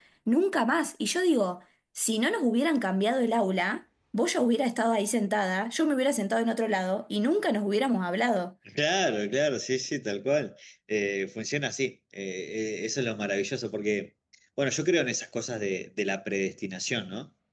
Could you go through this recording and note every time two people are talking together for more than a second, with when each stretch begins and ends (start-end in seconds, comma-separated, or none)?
none